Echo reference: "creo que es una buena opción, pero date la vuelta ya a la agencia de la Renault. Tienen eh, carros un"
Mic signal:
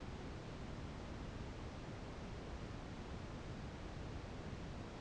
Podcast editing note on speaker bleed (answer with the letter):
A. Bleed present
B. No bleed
B